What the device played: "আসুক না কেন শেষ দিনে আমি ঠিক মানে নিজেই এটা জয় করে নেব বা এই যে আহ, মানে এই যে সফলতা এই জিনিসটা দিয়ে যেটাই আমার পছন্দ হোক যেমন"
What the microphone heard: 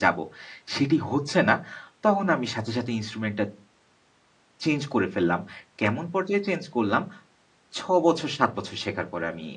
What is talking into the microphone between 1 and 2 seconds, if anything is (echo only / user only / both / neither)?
user only